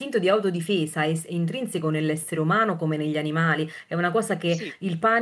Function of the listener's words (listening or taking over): listening